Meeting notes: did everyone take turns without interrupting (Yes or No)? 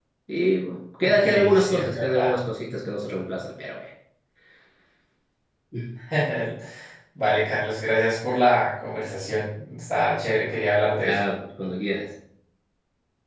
No